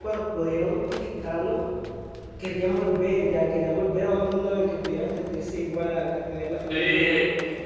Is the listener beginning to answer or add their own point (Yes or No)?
Yes